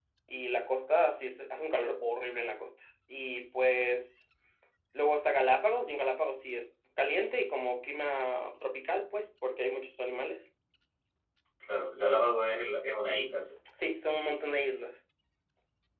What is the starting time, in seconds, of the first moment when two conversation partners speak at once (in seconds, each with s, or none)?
none